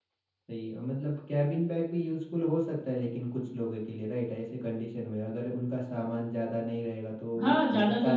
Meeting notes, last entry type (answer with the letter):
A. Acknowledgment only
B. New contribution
B